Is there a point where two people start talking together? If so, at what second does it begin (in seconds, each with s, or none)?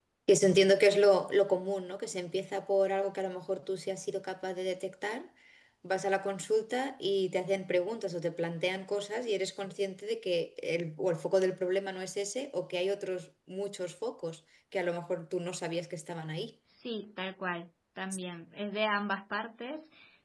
none